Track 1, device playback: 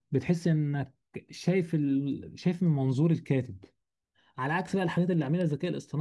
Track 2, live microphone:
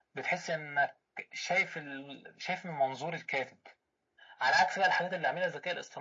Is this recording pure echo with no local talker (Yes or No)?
Yes